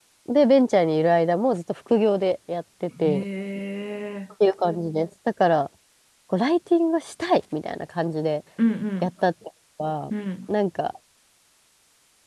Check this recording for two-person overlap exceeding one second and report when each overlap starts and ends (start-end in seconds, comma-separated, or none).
none